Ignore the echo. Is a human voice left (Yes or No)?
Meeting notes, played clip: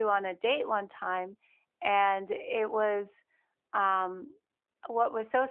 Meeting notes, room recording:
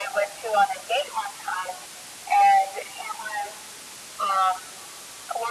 No